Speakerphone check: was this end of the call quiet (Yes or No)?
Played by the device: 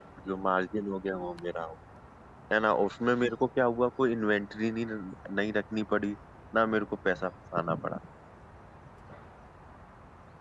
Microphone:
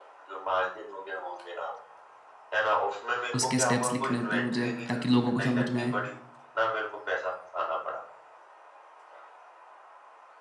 No